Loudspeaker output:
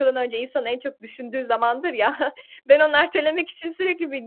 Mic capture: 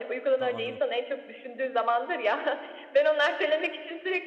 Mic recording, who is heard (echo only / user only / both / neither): both